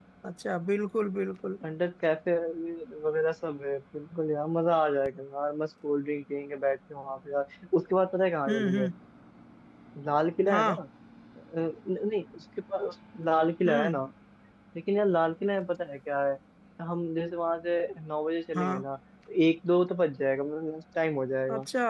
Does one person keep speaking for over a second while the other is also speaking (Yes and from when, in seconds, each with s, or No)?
No